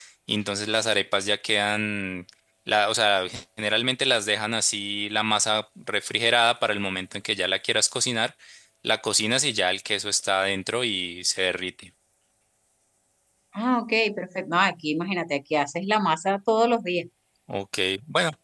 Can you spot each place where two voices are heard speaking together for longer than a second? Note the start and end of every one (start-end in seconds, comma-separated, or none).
none